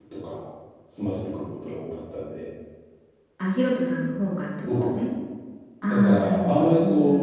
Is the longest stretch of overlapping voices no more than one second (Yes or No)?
No